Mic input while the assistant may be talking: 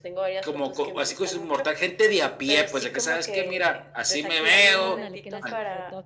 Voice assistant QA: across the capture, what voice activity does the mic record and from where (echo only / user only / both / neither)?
both